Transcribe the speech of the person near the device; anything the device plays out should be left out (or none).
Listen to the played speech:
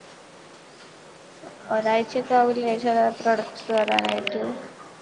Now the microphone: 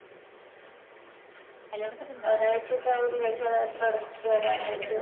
ഹലോ കേക്ക്ണ്ടാ